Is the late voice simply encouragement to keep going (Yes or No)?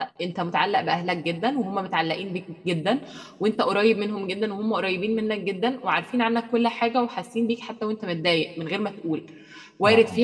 Yes